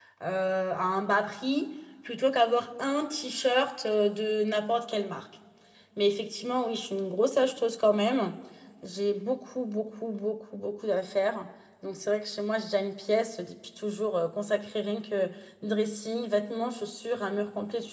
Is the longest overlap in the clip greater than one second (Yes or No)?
No